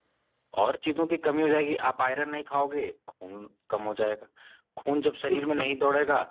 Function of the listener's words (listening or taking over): listening